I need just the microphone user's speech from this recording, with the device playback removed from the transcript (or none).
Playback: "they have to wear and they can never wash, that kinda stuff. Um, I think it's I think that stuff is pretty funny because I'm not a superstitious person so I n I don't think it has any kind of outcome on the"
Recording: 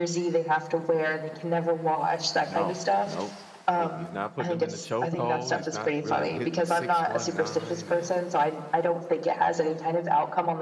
No. No, no, he's not putting them in the choke hold, he's not really hitting the 619 and